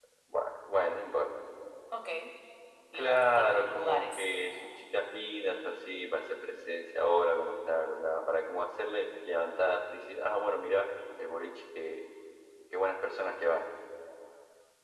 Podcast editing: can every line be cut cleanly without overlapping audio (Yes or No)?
No